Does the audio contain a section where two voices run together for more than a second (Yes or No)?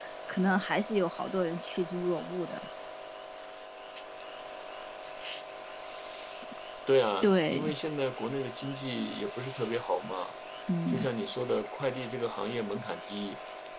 No